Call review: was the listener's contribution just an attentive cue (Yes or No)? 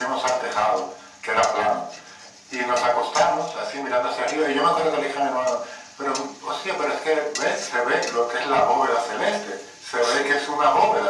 Yes